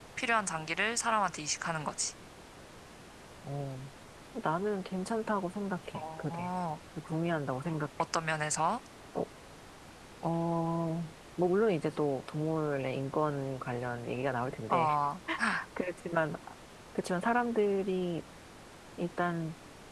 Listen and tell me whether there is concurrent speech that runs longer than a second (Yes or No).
No